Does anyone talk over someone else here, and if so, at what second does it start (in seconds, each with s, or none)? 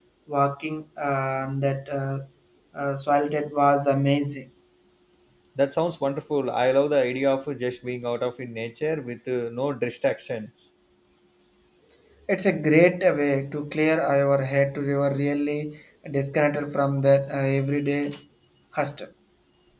none